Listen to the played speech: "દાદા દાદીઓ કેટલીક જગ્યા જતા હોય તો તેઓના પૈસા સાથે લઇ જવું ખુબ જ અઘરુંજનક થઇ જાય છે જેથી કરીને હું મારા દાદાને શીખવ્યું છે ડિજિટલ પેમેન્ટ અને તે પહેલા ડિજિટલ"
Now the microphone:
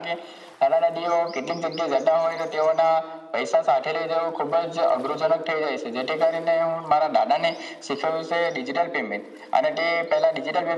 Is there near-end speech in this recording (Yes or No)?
No